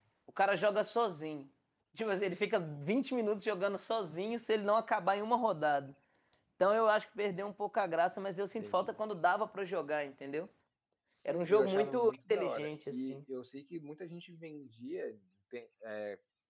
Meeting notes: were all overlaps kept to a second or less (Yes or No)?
No